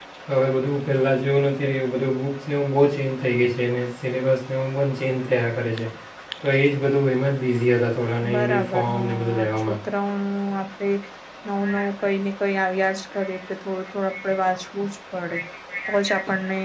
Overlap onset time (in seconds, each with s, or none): 8.3 s